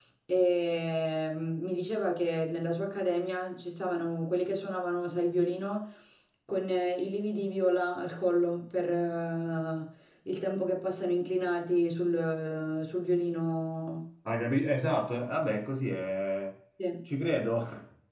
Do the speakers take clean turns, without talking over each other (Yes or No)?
Yes